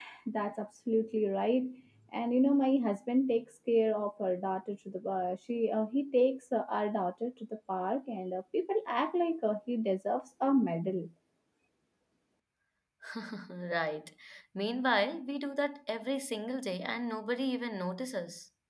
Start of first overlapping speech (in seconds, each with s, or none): none